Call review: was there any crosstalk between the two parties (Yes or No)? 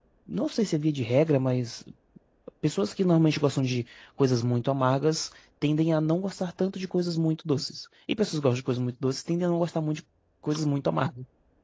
No